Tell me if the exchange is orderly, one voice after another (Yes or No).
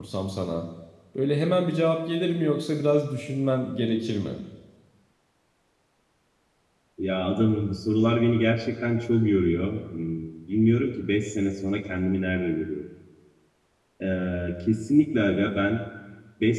Yes